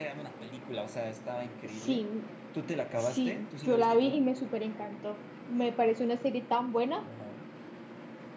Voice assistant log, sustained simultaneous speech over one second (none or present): present